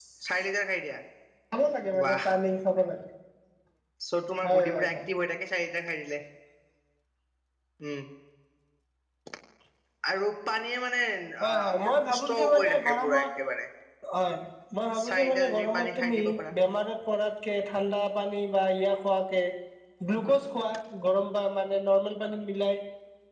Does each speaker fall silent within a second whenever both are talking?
No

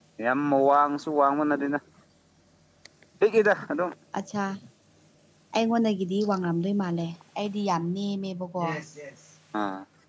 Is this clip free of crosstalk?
Yes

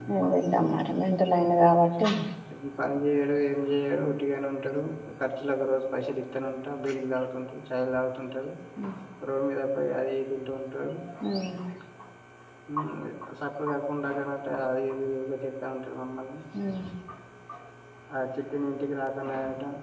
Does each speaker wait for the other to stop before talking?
Yes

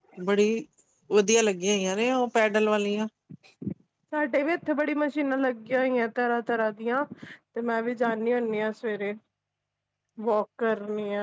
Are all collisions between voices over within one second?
Yes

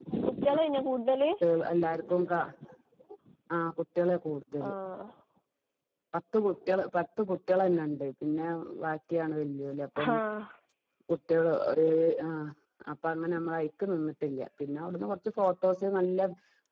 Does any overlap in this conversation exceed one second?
No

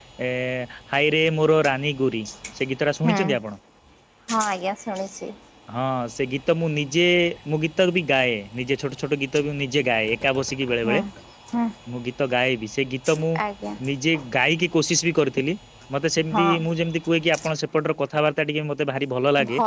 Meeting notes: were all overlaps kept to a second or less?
Yes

